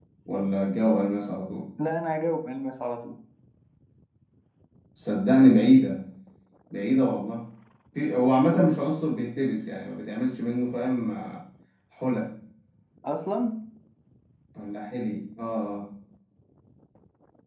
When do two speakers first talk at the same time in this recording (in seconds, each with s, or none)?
none